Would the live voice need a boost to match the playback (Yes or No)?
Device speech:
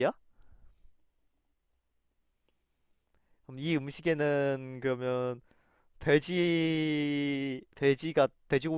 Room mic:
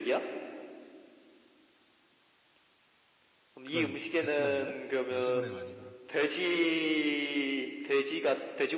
Yes